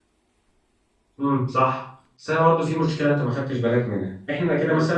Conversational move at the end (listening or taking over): listening